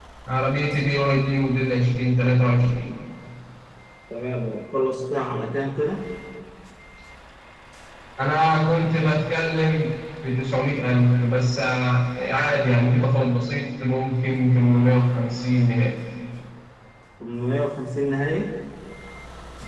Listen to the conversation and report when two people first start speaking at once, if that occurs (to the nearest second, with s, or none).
none